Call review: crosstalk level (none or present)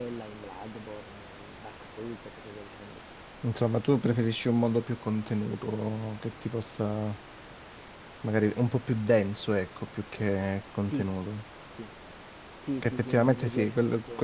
present